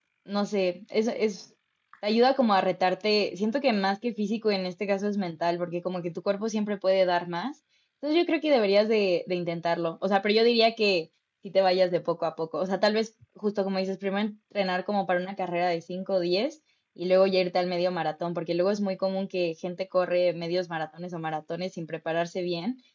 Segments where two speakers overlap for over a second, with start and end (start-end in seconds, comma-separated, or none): none